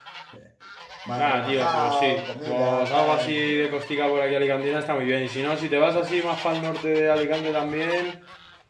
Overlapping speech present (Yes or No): Yes